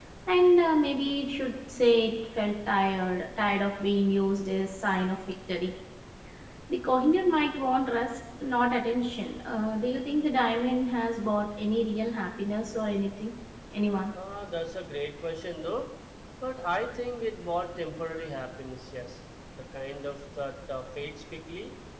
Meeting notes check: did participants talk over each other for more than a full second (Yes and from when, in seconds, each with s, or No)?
No